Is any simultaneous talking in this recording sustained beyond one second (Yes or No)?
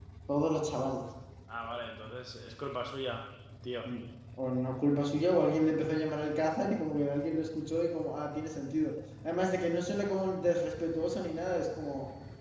No